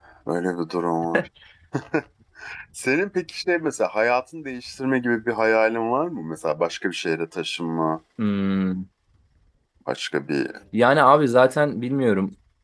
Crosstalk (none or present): none